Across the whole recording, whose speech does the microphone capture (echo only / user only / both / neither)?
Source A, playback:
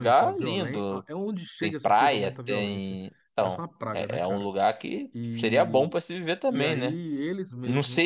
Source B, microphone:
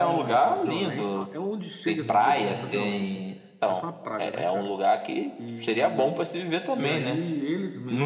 both